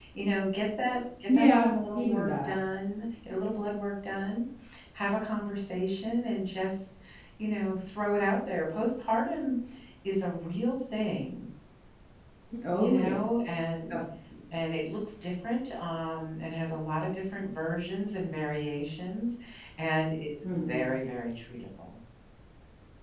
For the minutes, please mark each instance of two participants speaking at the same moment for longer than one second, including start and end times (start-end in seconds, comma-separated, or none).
1.3-2.5